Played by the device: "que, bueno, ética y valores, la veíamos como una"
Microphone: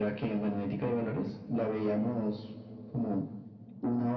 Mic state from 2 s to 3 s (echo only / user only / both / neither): echo only